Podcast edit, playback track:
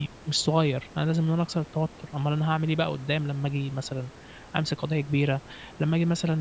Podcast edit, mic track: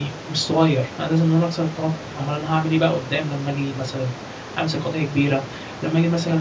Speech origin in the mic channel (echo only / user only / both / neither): echo only